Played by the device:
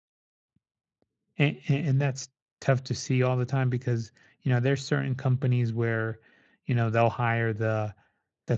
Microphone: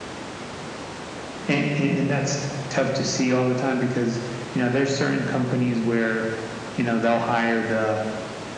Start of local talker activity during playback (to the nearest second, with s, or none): none